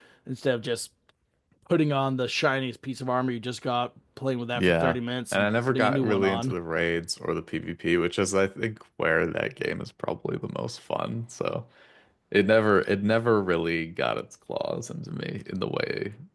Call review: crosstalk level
present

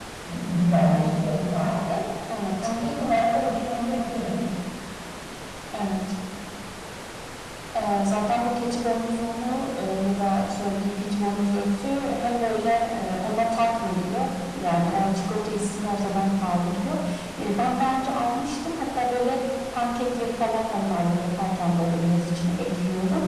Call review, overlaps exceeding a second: none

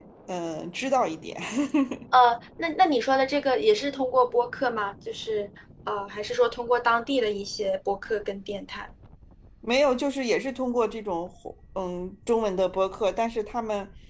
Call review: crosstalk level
none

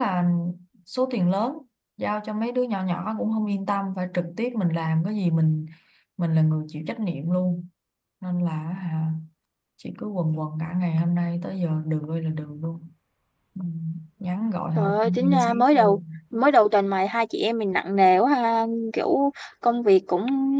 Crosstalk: present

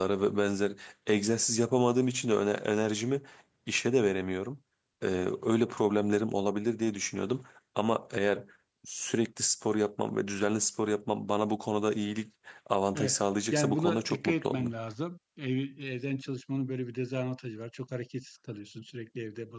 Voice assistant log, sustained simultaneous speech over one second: present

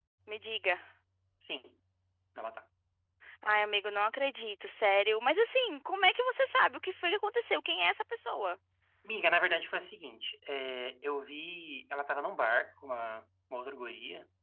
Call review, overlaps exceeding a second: none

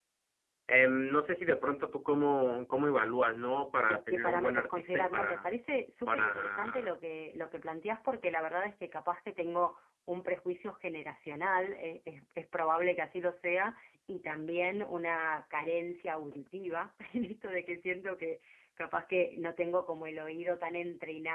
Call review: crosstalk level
present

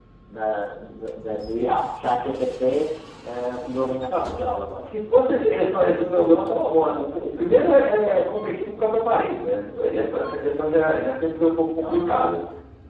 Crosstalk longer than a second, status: none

